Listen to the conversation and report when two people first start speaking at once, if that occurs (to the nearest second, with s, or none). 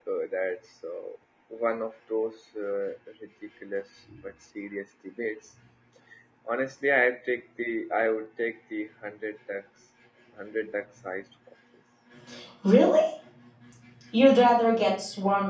none